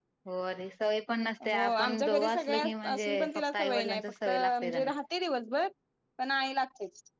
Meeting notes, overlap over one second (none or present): present